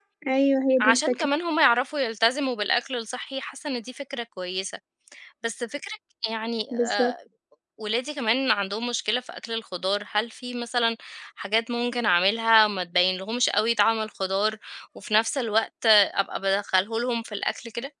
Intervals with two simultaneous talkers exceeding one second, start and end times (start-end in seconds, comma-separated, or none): none